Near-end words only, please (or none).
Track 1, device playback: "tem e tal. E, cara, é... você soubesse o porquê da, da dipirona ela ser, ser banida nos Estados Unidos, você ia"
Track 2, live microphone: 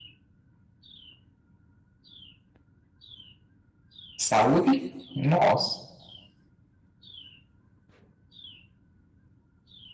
Saúde? Nossa.